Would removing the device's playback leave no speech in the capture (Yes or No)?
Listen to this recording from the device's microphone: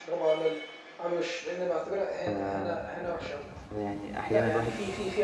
No